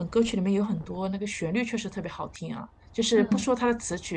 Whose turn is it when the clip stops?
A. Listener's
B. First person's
B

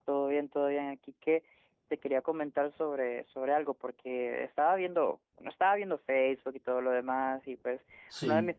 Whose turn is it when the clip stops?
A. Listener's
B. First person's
B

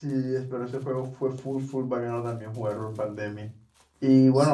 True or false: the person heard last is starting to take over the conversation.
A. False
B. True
A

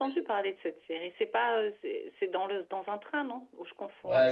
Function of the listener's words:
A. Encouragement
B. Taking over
B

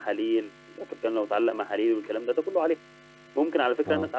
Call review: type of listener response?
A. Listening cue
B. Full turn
A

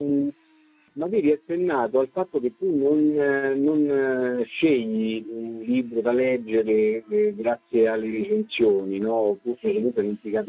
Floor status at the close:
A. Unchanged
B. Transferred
A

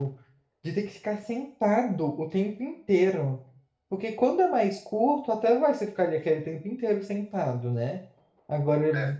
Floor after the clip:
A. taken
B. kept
B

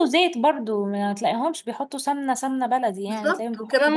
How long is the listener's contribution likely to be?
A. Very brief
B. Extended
B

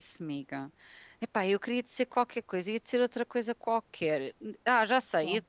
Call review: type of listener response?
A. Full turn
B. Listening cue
B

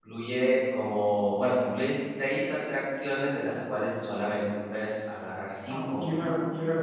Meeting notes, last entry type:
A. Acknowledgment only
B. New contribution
B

